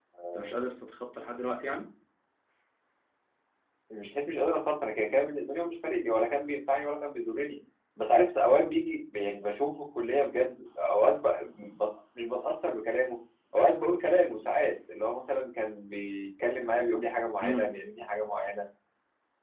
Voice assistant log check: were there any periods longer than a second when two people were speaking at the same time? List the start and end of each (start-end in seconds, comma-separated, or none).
none